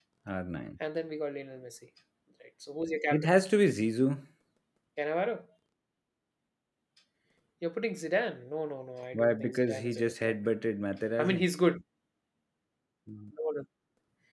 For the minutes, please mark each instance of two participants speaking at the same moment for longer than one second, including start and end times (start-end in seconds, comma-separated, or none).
9.1-10.4